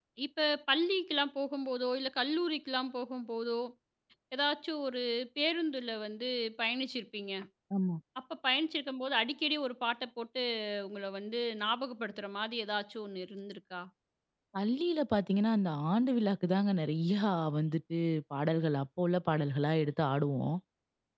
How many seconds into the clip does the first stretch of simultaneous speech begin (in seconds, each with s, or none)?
none